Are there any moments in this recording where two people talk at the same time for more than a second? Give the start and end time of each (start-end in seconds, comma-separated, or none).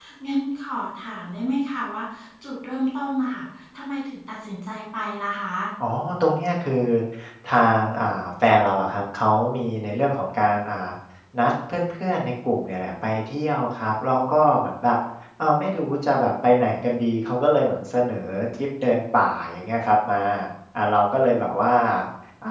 none